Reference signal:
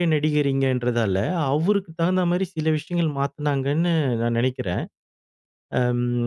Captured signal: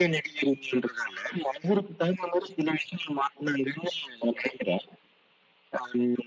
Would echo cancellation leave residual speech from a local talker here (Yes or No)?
No